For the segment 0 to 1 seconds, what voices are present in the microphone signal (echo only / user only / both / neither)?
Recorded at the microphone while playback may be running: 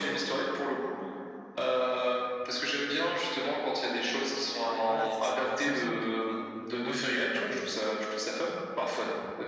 echo only